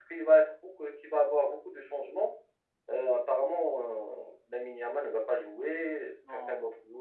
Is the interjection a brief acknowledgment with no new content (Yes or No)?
Yes